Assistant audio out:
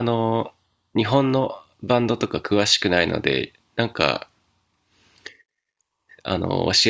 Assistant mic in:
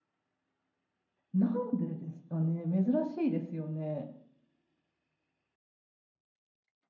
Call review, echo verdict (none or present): none